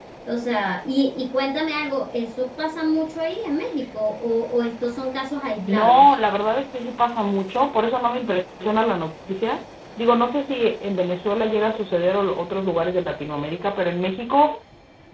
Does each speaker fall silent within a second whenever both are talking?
Yes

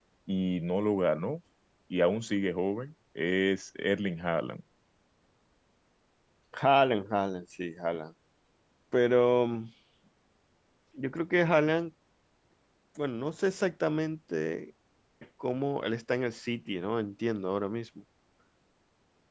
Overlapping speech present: No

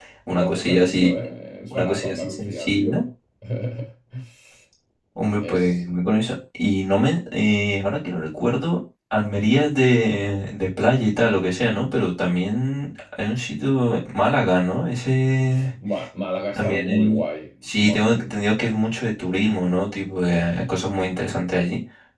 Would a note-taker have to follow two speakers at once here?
Yes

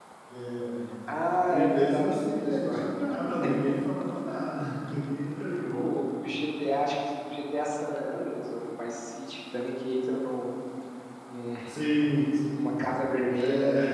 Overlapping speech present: Yes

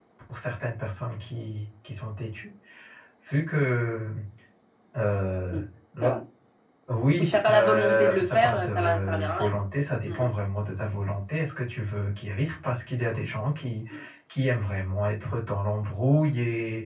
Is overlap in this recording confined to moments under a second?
No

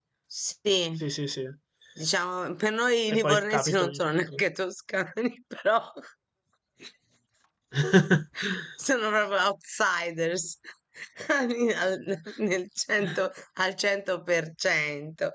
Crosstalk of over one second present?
Yes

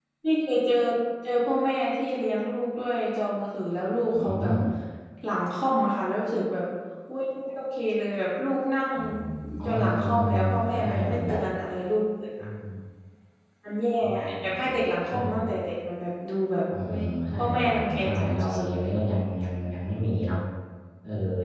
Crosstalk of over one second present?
Yes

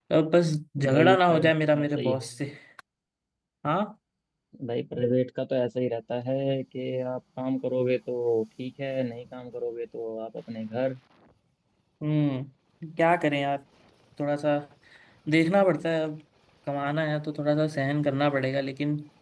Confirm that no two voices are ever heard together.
No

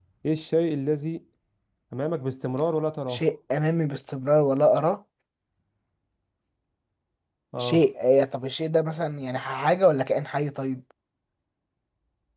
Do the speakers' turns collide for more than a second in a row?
No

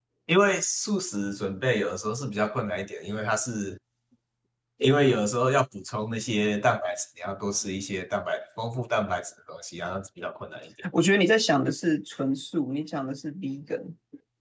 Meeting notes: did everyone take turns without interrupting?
Yes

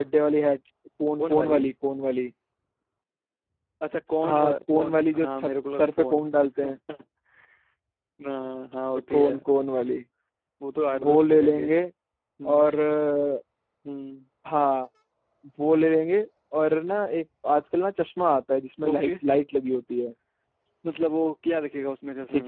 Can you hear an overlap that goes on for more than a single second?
Yes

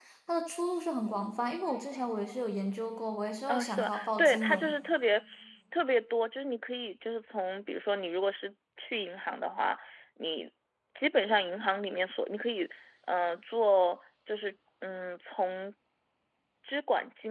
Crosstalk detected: Yes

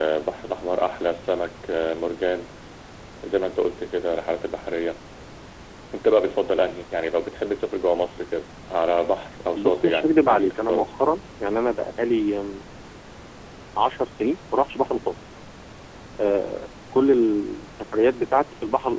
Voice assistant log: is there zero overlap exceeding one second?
No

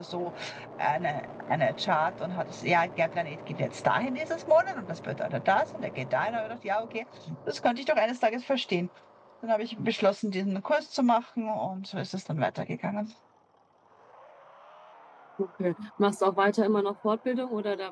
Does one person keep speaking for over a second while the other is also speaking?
No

